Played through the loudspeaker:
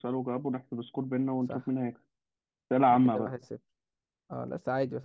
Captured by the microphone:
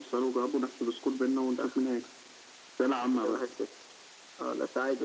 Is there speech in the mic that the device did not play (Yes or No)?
No